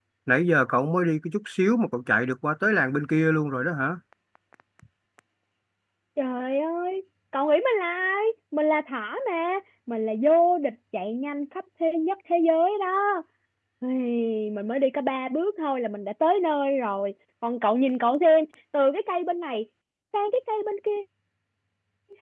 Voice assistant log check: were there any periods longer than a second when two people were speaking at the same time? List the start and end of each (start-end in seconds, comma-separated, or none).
none